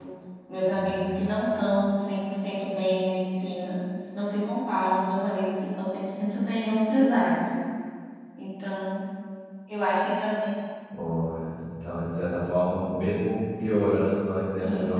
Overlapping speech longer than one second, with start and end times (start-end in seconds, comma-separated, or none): none